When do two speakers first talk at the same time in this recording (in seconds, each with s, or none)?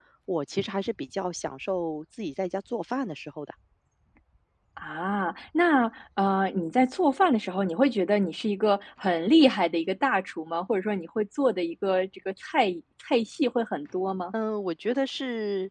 none